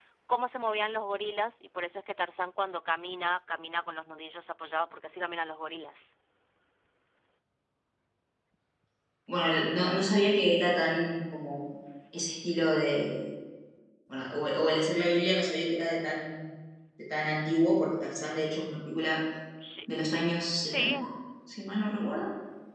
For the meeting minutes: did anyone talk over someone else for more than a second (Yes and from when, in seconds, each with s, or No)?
No